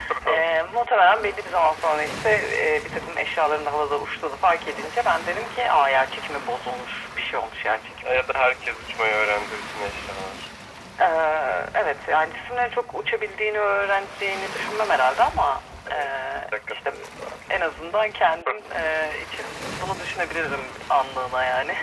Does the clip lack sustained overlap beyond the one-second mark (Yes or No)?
Yes